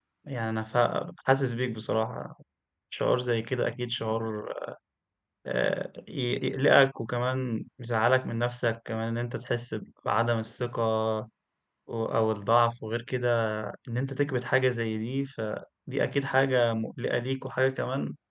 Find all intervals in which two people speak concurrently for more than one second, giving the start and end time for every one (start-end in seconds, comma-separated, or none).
none